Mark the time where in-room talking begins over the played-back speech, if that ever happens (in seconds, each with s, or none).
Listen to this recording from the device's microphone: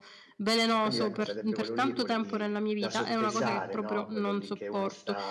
0.7 s